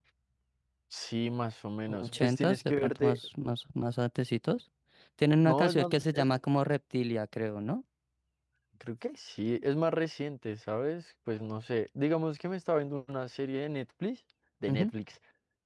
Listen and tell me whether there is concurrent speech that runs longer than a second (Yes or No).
Yes